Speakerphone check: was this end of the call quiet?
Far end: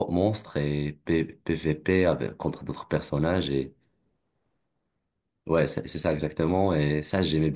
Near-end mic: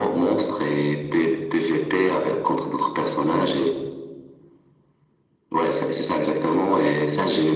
Yes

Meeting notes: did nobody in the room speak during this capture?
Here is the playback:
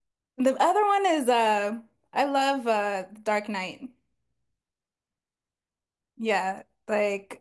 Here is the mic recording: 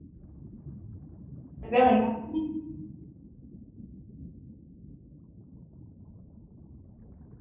No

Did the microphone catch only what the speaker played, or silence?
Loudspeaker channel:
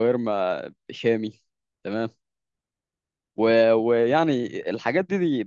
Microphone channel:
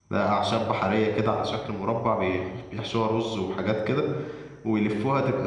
No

